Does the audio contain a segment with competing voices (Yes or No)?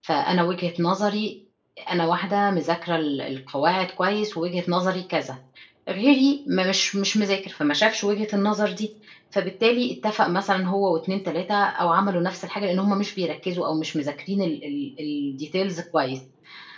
No